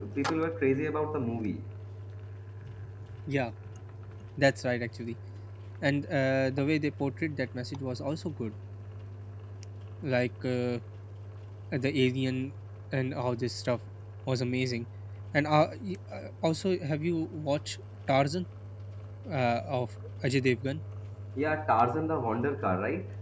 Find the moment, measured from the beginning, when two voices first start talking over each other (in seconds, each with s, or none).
none